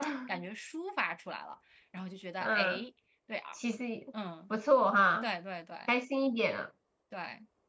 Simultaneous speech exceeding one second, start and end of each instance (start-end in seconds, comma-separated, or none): none